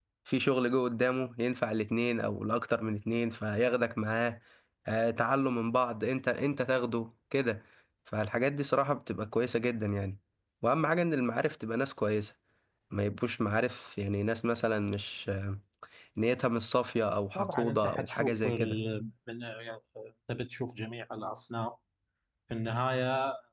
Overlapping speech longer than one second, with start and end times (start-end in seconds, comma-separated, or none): 17.4-18.8